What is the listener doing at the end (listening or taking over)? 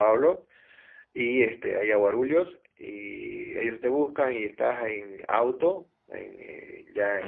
listening